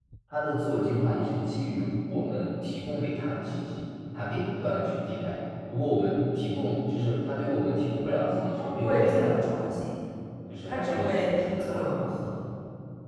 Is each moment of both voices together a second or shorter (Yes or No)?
No